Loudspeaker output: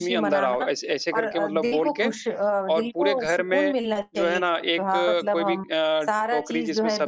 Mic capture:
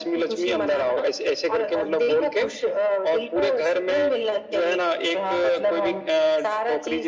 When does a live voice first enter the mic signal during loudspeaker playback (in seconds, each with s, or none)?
none